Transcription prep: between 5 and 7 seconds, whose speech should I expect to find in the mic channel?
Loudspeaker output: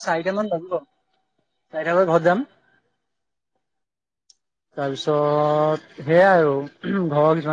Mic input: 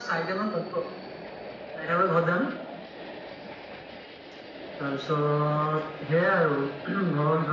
echo only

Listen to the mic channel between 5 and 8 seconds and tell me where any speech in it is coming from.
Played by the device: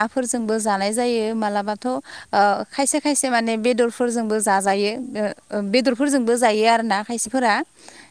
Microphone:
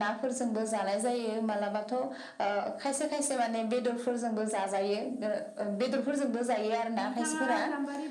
both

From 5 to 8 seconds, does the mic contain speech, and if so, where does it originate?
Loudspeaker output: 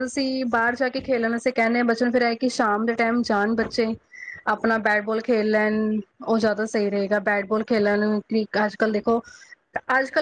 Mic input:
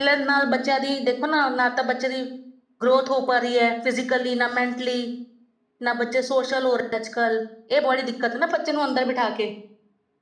user only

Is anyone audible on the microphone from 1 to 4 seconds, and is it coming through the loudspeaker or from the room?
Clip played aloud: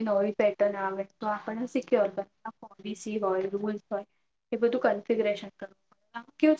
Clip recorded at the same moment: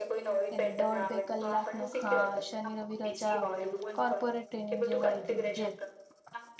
both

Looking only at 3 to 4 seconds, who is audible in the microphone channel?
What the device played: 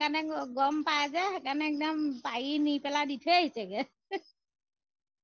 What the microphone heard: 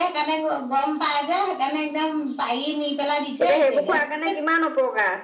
both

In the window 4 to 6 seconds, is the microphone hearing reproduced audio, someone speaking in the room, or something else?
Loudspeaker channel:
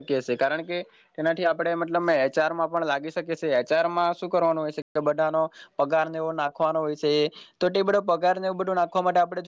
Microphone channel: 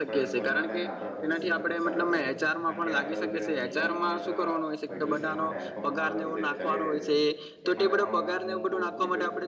both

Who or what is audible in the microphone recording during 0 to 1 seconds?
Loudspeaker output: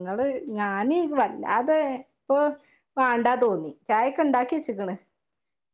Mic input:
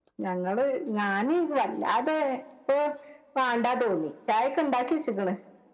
echo only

